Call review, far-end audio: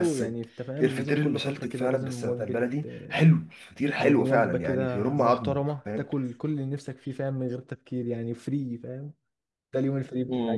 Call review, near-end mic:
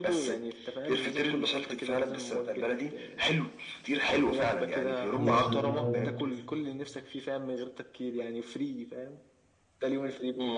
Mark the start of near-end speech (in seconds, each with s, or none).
5.2 s